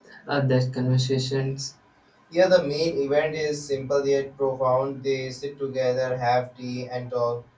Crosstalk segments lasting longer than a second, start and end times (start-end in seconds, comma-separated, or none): none